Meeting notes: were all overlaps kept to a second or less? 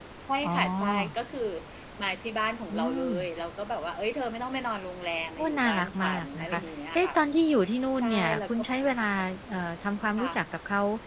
No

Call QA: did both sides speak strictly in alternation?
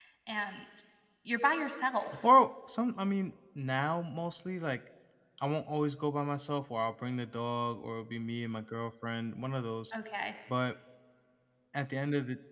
Yes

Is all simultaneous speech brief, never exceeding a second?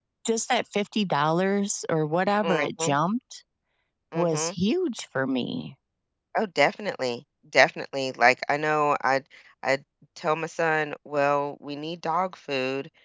Yes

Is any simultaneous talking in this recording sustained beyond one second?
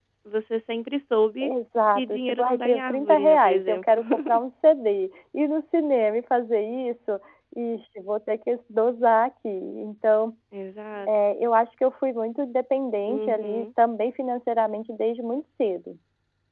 Yes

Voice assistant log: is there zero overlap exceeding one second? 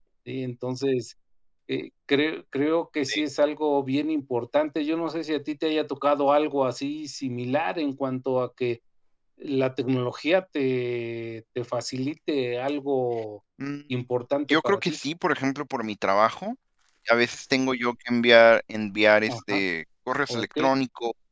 Yes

